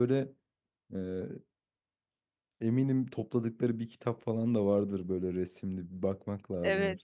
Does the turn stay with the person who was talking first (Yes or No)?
No